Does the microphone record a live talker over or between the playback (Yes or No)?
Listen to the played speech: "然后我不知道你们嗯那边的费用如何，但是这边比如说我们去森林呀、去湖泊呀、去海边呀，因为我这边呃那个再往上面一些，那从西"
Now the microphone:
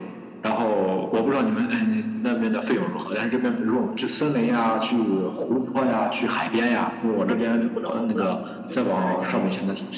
Yes